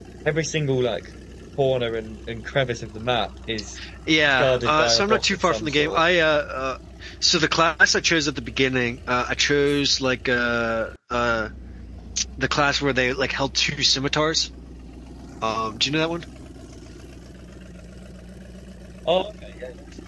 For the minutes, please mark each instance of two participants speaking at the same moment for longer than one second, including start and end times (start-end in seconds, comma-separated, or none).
4.3-6.0